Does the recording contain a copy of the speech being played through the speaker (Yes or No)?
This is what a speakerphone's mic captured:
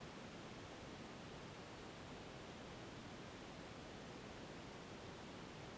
No